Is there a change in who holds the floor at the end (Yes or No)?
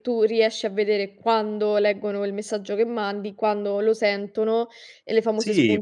Yes